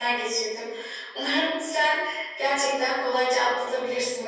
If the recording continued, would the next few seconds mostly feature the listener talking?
No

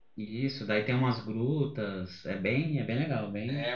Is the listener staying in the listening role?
No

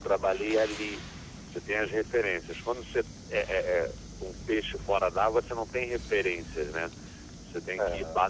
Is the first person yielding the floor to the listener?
No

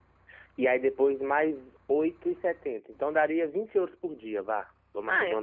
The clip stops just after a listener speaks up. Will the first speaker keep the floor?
No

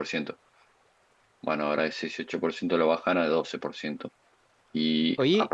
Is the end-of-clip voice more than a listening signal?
No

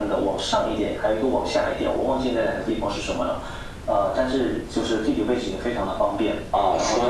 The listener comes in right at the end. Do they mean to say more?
Yes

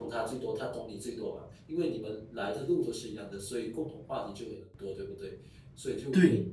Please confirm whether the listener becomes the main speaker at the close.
No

